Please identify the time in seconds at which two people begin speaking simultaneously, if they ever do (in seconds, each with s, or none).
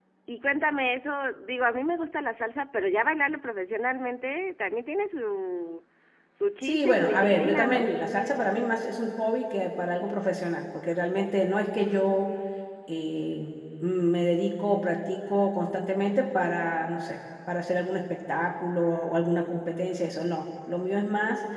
6.6 s